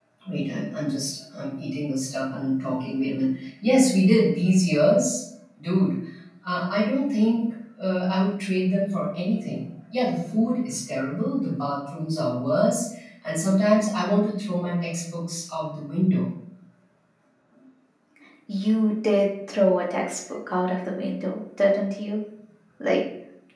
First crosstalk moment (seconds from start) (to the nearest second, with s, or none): none